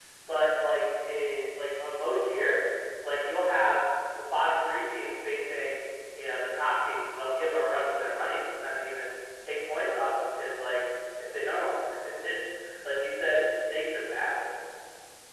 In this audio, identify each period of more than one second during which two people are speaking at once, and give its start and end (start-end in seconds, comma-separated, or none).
none